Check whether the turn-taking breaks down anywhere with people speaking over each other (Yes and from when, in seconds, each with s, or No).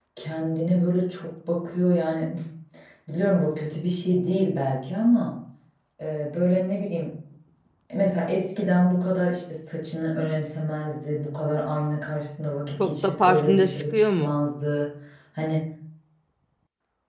Yes, from 12.8 s